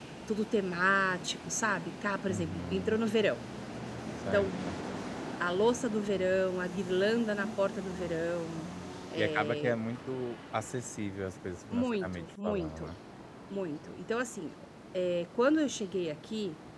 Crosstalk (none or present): present